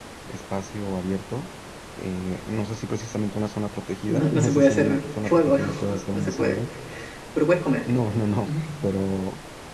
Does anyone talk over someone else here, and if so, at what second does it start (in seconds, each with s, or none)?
4.1 s